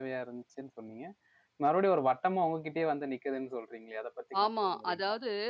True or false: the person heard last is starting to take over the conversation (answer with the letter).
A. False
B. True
B